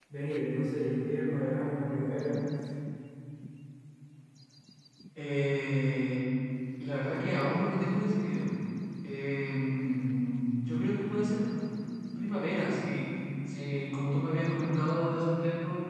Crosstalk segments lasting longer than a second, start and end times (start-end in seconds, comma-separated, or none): none